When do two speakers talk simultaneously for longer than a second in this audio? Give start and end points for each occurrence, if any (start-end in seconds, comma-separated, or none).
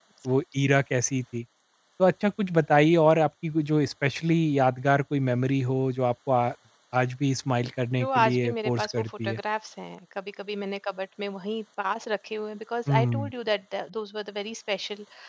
8.0-9.4